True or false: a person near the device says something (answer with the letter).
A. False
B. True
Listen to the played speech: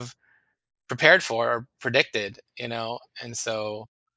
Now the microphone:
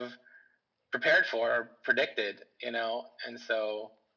A